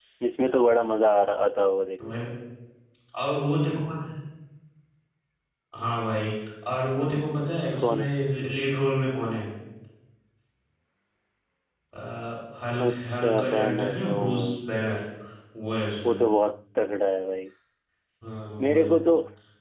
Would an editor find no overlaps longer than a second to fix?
No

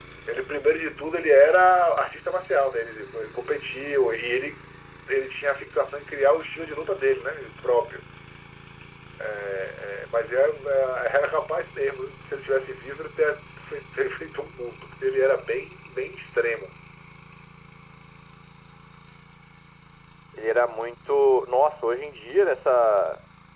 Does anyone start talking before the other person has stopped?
No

